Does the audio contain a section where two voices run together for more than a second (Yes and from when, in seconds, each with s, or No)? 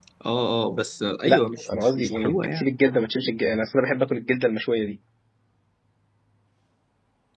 Yes, from 1.2 s